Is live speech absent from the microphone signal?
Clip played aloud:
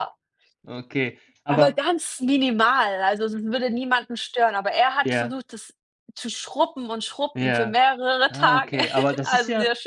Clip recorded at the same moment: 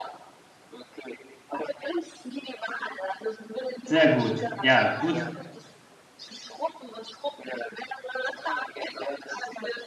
No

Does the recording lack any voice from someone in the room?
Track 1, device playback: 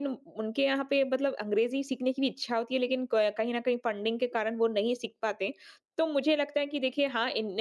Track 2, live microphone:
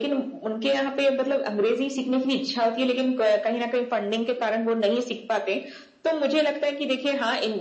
Yes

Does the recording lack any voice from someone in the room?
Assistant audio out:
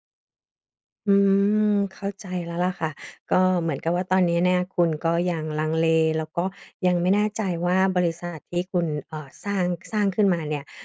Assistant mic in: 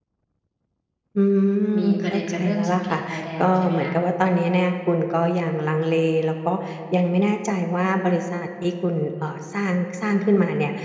No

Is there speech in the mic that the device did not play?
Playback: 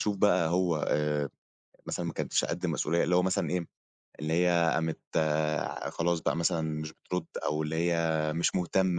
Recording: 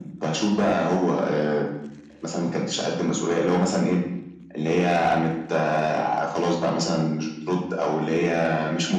No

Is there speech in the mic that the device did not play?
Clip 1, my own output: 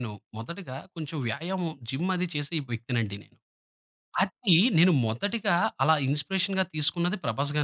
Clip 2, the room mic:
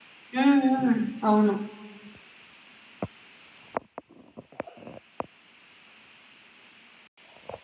Yes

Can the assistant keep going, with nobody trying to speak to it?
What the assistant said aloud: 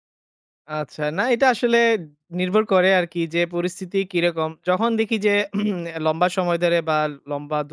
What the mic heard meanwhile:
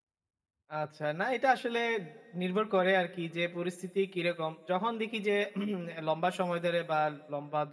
Yes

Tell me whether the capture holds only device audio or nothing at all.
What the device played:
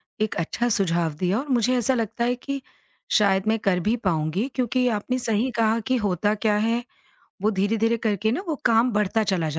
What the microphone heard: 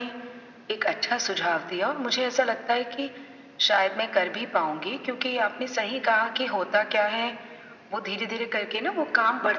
Yes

